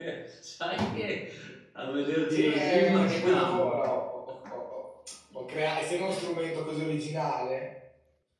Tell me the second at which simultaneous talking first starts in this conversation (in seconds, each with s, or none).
2.3 s